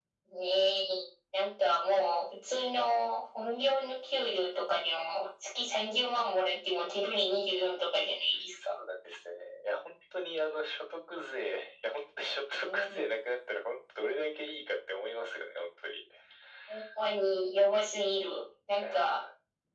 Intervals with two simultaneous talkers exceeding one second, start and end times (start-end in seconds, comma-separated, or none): none